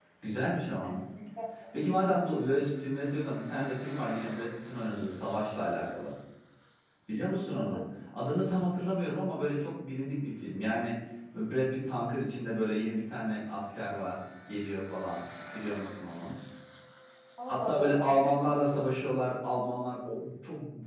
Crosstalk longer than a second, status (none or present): present